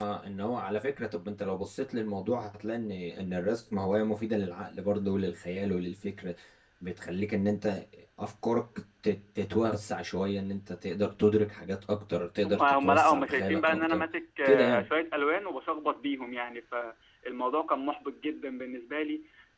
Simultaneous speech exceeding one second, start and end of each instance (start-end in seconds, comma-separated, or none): 12.4-14.0